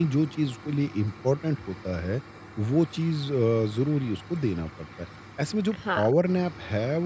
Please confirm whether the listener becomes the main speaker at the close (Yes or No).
No